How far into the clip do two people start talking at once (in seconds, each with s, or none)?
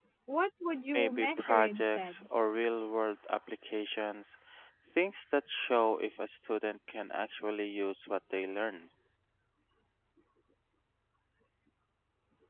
0.9 s